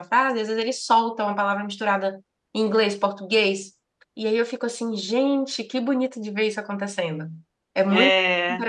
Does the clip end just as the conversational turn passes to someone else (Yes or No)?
No